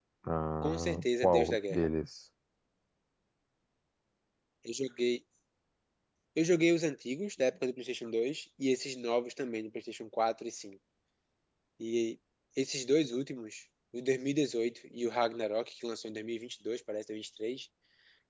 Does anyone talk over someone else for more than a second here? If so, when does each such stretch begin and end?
0.6-1.9

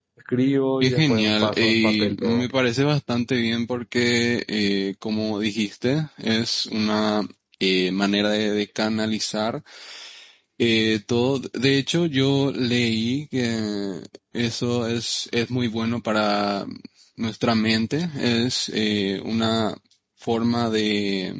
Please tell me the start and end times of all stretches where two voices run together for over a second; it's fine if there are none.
0.8-2.4

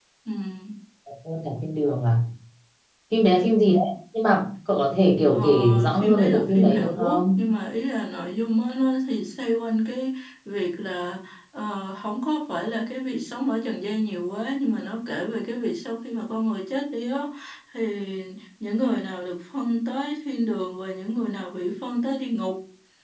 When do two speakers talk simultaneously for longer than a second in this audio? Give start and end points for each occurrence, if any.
5.3-7.4

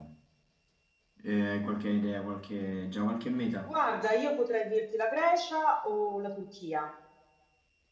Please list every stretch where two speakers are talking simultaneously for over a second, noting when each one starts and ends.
none

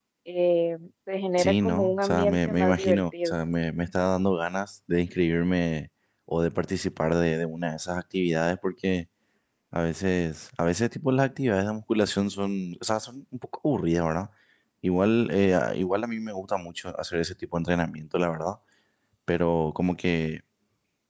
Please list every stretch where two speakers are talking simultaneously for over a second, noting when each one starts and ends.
1.4-3.3

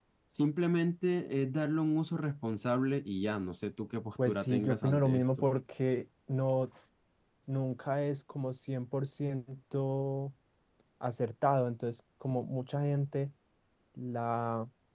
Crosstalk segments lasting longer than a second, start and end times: 4.2-5.5

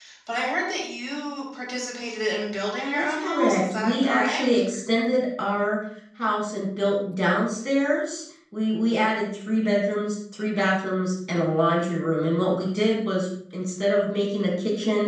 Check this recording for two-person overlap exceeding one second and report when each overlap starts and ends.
2.8-4.4

